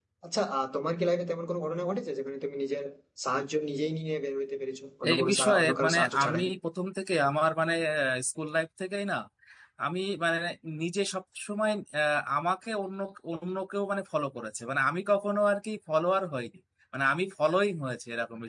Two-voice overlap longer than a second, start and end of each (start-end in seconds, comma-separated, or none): 5.1-6.4